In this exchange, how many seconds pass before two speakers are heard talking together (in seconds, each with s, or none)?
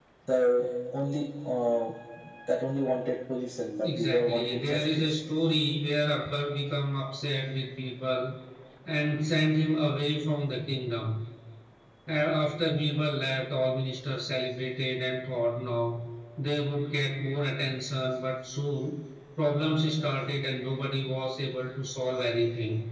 3.8 s